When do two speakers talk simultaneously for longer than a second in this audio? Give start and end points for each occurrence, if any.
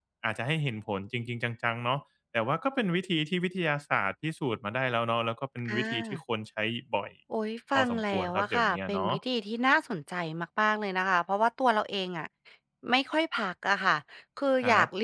7.8-9.1

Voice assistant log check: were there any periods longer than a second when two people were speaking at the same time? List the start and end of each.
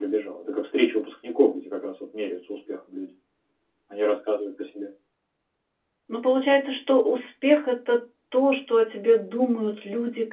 none

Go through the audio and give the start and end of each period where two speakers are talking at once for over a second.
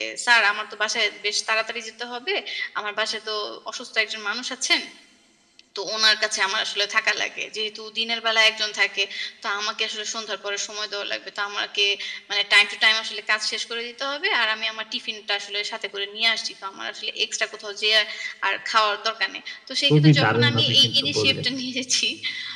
19.9-21.4

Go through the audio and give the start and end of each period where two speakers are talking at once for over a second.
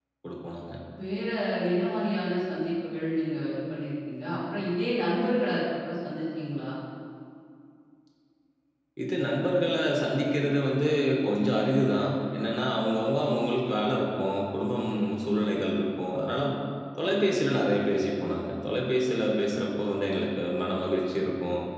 none

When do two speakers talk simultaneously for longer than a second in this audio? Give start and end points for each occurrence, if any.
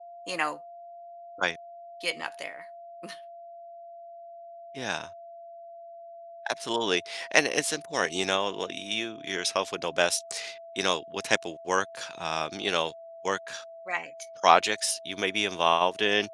none

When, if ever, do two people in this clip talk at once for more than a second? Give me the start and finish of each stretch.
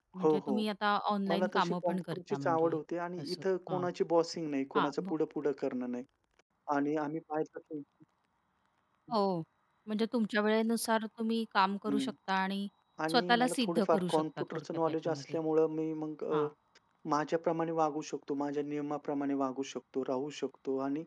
1.3-2.8, 13.1-15.4

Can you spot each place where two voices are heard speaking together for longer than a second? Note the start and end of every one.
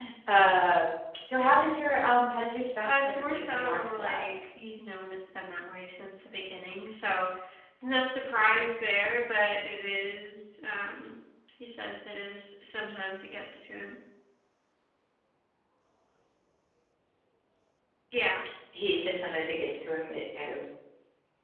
2.8-4.2

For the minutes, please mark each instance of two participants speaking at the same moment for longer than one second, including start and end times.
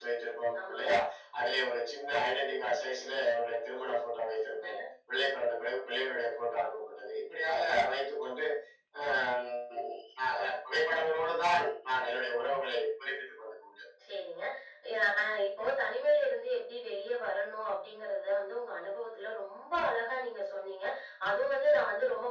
none

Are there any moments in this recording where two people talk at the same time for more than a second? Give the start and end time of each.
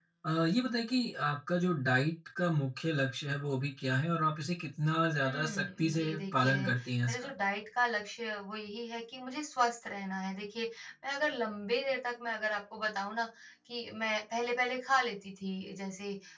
5.2-6.7

